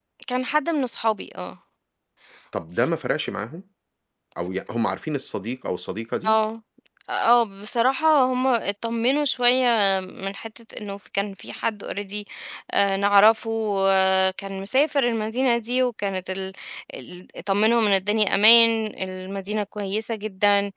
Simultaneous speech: No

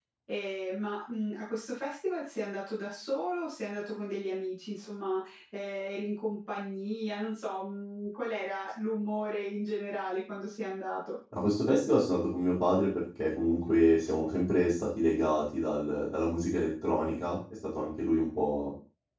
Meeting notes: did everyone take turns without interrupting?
Yes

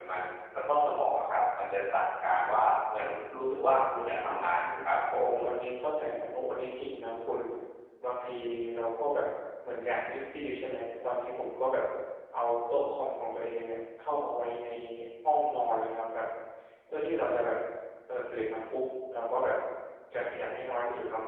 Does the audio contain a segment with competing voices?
Yes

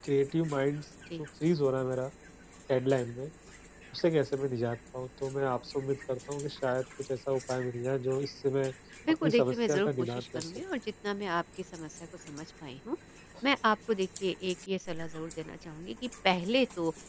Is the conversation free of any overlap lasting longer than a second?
No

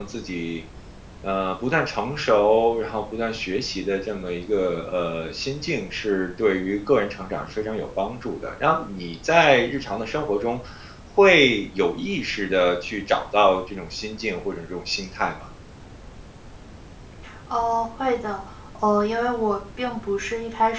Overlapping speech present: No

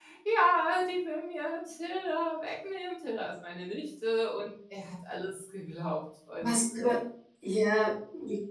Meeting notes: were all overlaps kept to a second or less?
Yes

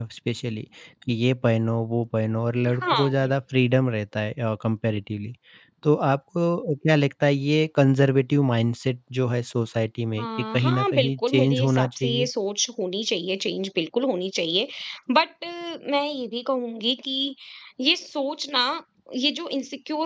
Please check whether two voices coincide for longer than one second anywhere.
Yes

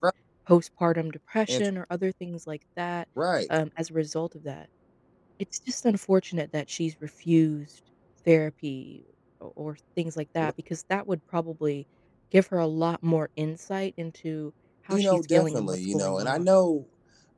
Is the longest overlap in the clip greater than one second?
Yes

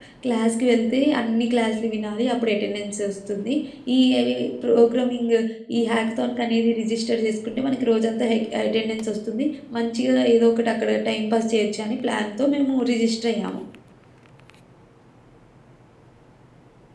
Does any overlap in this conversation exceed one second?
No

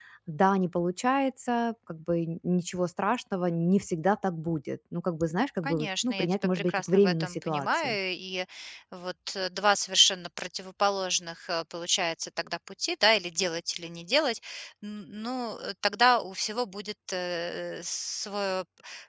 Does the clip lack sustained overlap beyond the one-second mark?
No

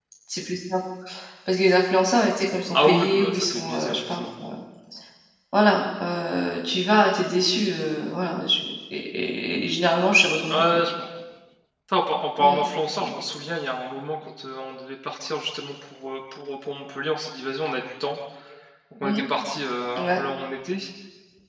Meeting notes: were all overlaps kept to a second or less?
No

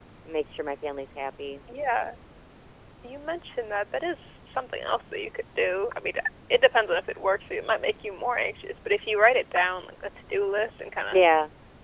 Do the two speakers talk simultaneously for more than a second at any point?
No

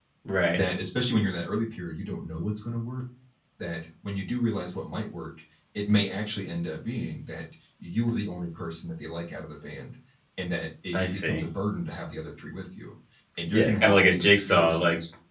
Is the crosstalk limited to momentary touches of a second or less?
No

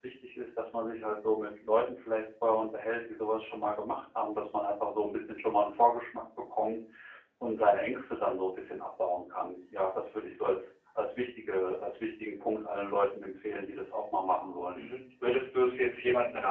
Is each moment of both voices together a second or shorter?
Yes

